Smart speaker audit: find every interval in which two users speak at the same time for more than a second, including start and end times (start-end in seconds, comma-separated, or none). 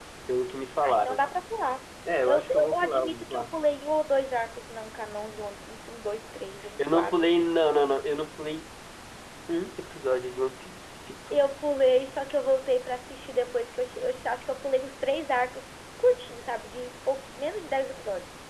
2.2-3.4